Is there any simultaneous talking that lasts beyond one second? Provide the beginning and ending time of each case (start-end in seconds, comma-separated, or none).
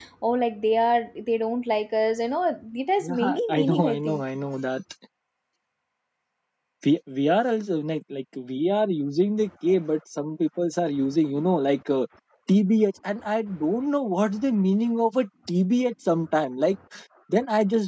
3.0-4.2